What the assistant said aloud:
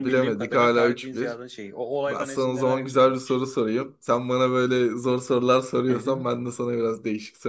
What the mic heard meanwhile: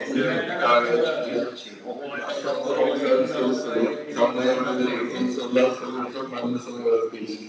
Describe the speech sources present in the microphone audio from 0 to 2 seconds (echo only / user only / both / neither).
both